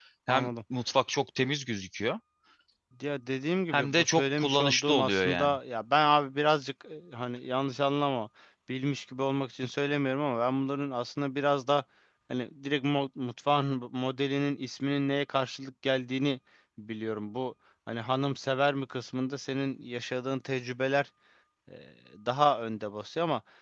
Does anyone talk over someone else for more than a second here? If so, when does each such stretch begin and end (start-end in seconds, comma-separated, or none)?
3.7-5.6